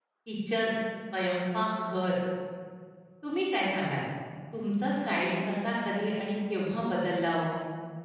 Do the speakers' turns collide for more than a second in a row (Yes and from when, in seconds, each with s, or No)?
No